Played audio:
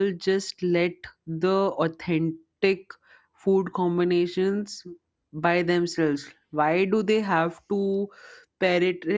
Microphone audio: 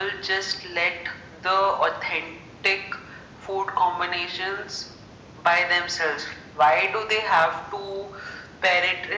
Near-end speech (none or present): none